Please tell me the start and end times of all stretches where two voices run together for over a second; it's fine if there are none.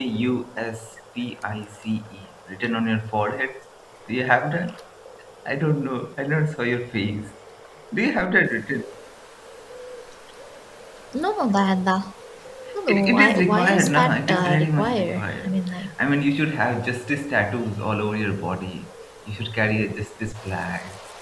12.9-15.6

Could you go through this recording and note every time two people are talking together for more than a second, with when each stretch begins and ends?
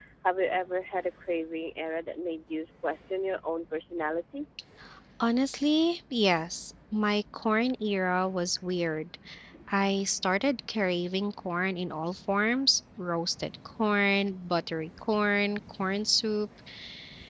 none

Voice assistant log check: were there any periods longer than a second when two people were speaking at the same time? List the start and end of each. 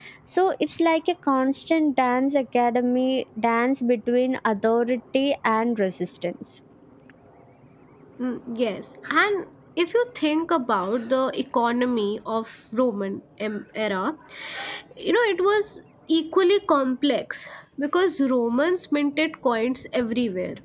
none

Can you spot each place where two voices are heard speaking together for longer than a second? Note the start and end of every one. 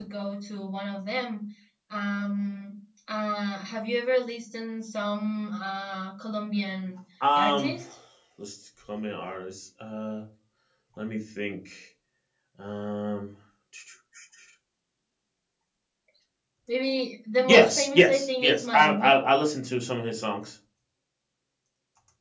17.5-19.1

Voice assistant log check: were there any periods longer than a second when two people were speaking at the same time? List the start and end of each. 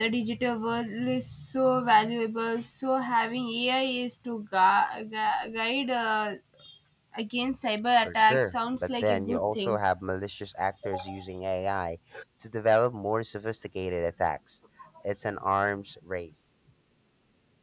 8.1-9.8

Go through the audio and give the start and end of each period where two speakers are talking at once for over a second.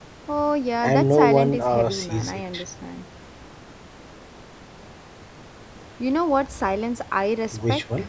0.8-2.6

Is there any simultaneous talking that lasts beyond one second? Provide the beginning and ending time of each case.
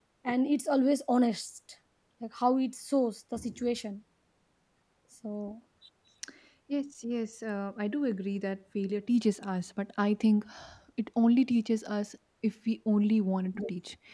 none

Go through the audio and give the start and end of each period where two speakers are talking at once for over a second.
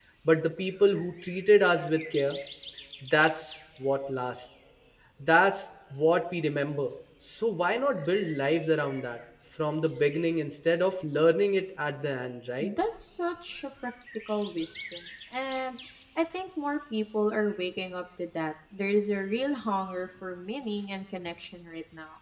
none

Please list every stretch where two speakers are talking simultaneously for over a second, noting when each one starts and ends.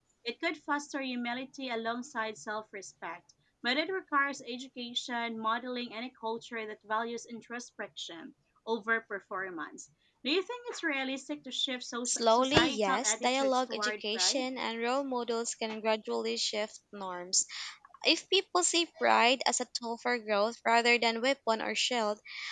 12.1-14.5

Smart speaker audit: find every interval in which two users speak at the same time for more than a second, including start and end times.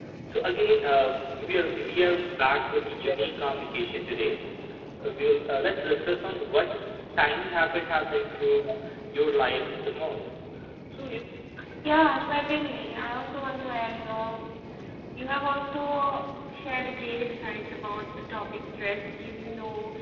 none

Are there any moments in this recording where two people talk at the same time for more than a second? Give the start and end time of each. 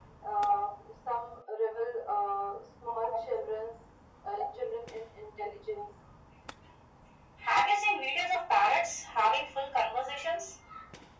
none

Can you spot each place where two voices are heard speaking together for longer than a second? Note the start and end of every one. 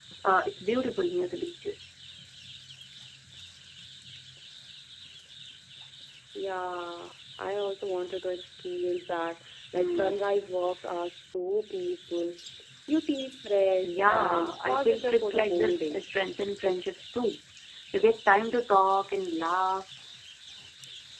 13.8-16.0

